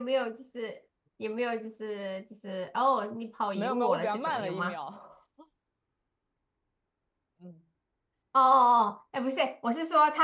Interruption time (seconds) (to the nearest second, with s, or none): 4 s